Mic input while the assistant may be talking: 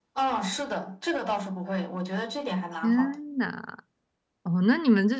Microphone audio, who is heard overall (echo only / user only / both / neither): both